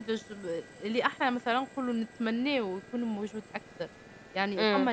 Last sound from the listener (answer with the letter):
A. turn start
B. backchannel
A